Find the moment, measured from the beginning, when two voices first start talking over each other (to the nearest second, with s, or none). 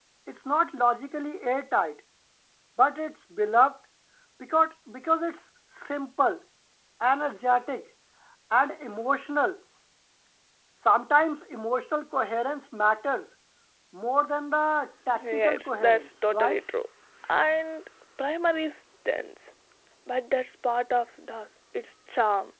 15 s